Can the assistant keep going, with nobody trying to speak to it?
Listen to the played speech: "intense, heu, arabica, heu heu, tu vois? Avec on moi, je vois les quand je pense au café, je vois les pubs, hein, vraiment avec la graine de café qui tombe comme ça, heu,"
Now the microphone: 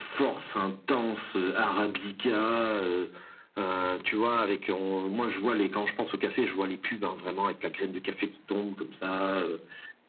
Yes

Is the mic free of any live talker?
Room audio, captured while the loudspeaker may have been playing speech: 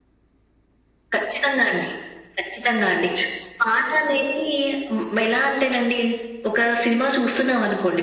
Yes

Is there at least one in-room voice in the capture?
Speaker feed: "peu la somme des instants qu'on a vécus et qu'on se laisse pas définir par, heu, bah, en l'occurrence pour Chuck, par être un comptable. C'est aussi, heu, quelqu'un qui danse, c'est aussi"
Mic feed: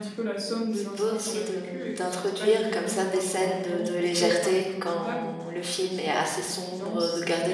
Yes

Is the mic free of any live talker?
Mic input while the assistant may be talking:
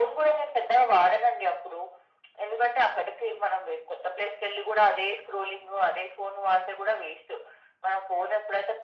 Yes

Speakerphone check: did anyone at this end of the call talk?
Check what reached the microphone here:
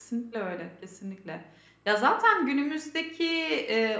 Yes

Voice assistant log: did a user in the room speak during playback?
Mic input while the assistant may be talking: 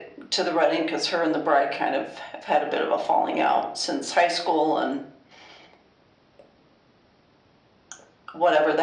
No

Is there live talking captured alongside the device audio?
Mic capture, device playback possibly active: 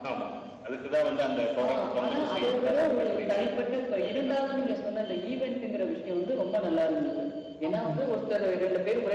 Yes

